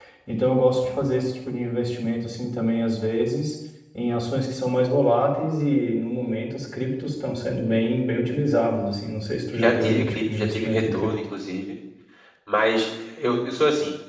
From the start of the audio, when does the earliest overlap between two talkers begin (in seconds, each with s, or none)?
9.5 s